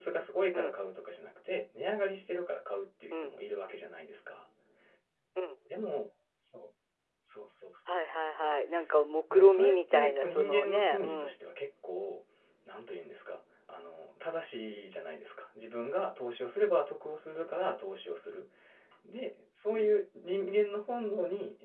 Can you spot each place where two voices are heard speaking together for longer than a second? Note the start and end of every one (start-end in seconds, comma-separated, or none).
9.3-11.3